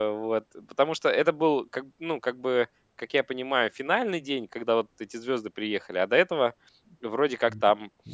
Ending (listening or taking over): taking over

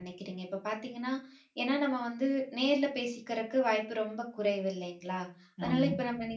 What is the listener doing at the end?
listening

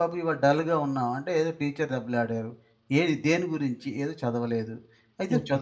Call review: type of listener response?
listening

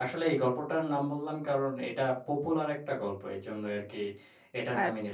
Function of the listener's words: taking over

